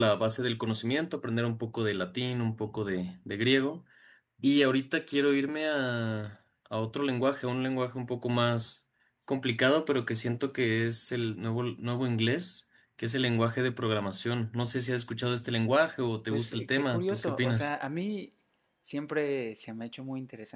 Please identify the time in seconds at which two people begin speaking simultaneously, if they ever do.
16.3 s

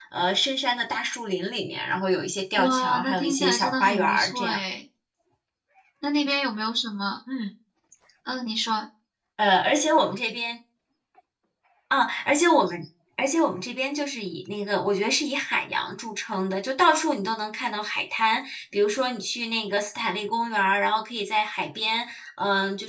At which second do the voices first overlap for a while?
2.6 s

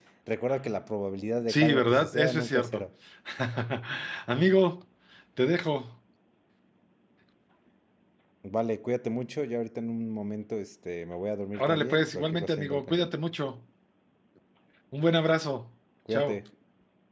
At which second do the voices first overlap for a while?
1.5 s

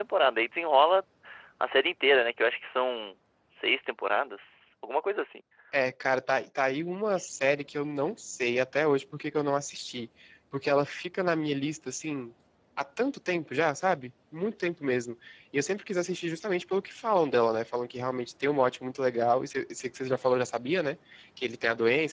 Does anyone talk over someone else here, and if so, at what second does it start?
none

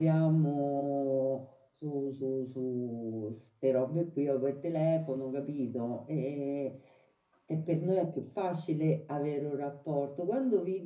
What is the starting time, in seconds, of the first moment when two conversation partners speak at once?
none

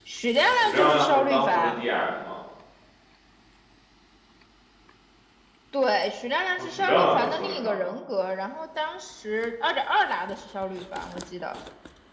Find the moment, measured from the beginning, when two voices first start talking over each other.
0.5 s

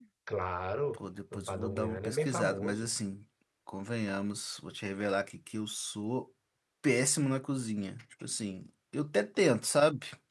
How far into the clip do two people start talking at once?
1.3 s

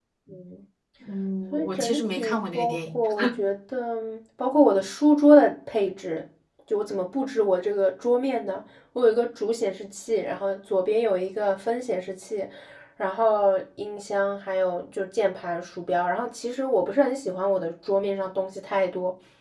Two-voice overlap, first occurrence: 1.5 s

